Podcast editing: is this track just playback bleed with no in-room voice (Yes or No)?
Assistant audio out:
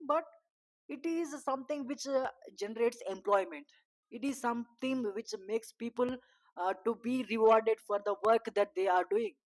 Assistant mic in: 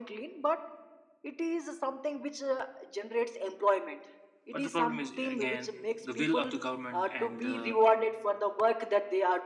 No